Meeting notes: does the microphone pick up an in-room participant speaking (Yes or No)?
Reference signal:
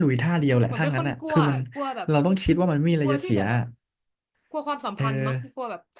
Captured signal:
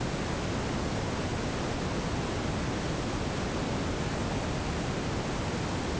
No